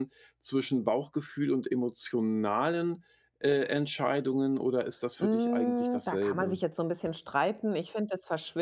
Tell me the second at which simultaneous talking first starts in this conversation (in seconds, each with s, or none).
5.2 s